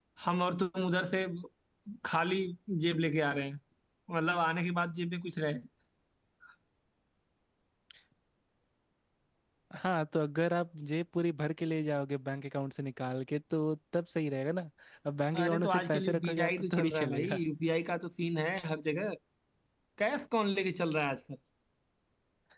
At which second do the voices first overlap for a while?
15.4 s

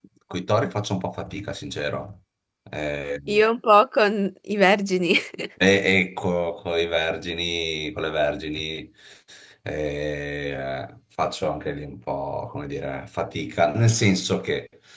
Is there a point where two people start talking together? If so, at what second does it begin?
none

